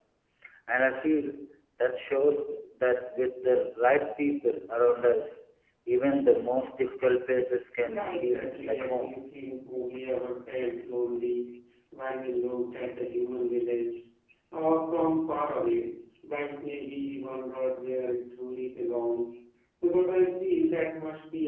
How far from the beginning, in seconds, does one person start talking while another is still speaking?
7.8 s

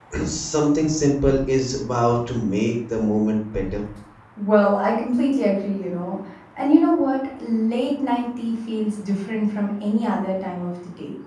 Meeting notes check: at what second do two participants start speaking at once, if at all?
none

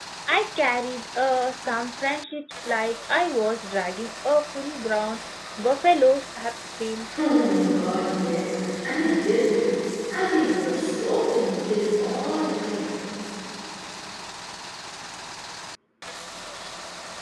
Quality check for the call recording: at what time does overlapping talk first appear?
none

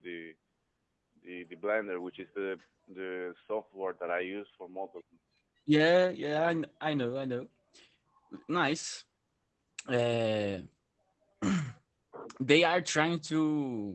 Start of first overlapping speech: none

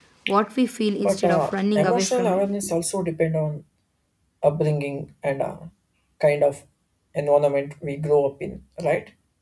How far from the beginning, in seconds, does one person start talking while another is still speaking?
1.0 s

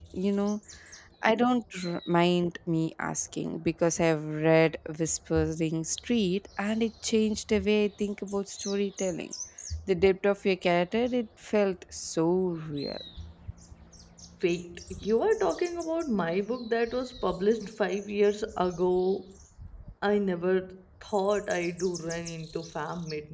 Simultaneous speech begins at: none

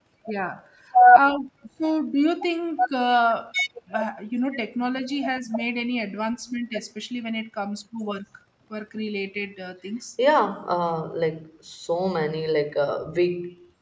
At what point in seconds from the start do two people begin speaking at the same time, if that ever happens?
none

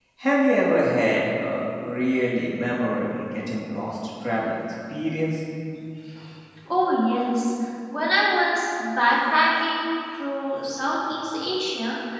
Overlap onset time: none

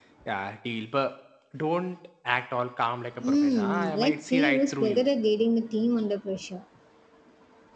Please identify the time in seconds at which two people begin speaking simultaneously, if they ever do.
3.2 s

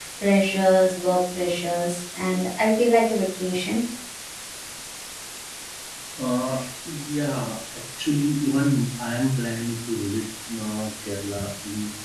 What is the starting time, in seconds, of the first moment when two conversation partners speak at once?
none

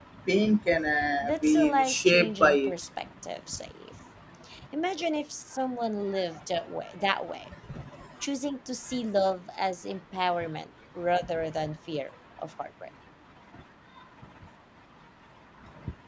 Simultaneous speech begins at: 1.2 s

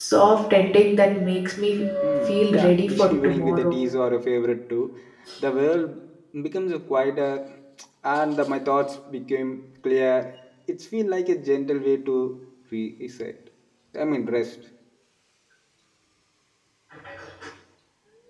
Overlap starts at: 2.3 s

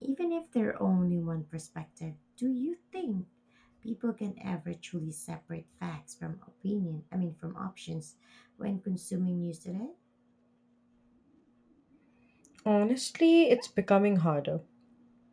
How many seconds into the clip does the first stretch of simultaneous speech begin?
none

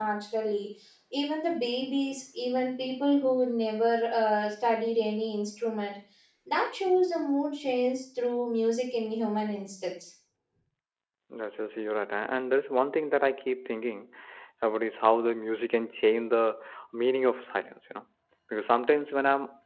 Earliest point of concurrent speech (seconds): none

